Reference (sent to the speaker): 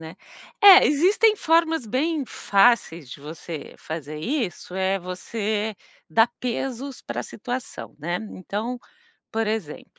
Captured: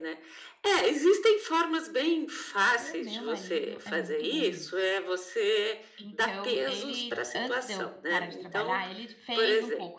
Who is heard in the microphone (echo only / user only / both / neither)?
both